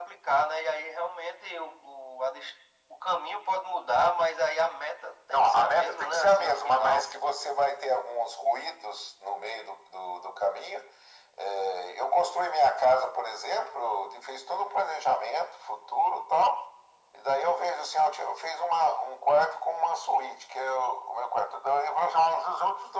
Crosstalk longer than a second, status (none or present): present